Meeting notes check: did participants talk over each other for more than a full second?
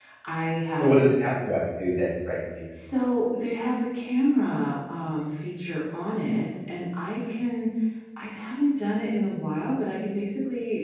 No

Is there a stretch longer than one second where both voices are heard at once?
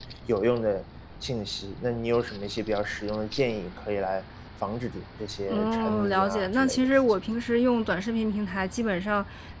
Yes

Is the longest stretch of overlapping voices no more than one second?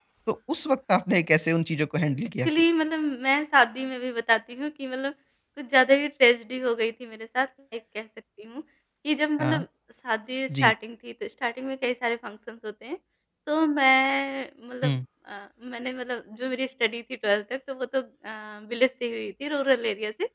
Yes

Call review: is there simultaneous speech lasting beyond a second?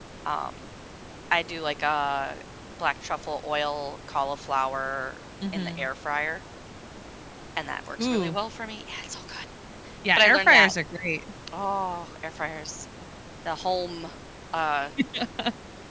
No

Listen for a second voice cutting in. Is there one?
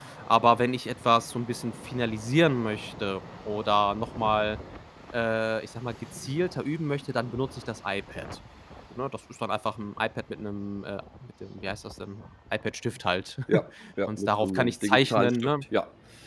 Yes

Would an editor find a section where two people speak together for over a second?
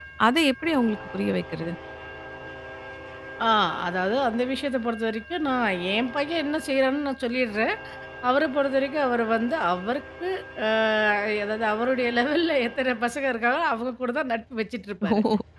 No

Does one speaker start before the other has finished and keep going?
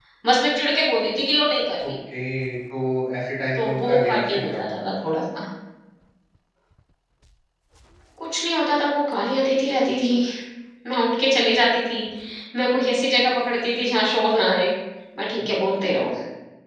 Yes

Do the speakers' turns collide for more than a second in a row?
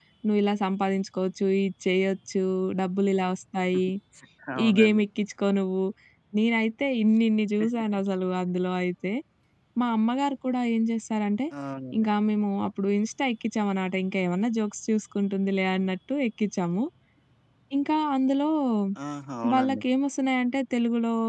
No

